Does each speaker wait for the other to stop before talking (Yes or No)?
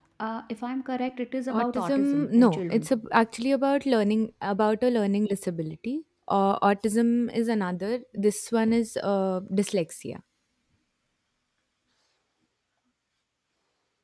No